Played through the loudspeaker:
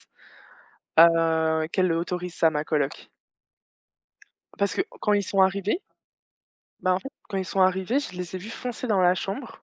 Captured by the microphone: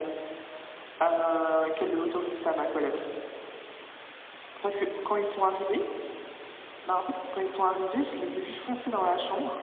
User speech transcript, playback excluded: none

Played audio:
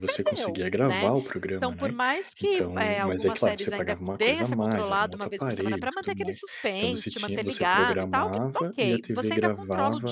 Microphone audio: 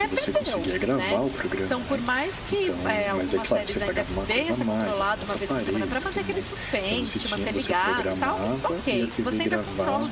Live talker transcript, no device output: none

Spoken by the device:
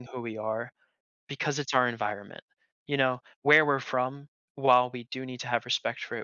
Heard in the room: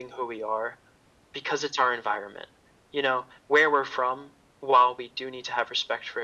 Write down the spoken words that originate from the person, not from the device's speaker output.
none

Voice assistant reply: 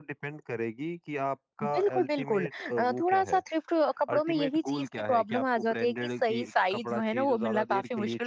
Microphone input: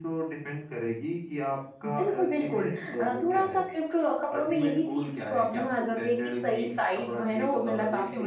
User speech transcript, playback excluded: none

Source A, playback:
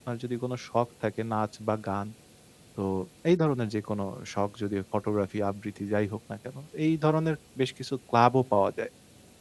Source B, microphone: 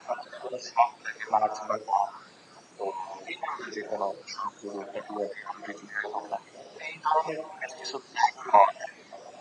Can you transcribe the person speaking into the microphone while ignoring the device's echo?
none

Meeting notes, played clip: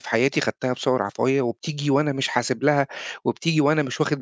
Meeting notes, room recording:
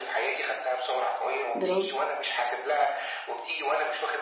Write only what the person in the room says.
برافو،

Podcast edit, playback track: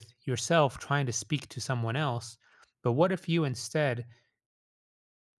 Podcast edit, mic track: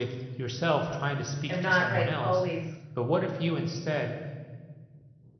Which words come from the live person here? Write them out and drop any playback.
I'm not like always

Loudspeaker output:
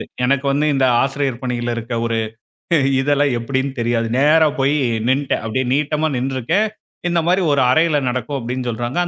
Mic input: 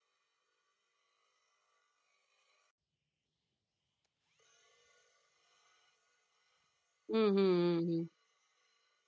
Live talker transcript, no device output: ம், ம், ம், ம்.

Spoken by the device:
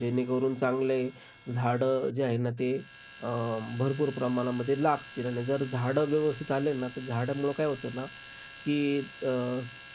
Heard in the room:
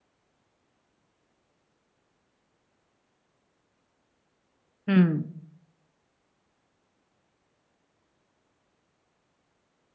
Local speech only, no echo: हं.

